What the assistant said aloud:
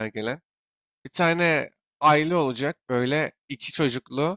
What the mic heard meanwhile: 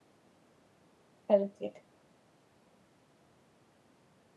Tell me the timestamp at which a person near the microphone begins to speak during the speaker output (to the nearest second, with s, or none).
1 s